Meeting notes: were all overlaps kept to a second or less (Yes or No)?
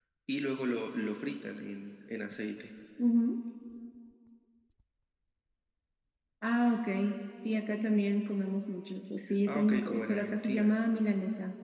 No